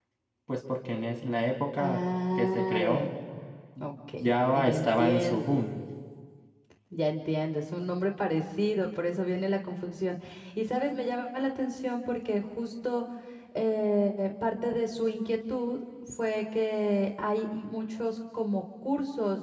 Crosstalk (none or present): present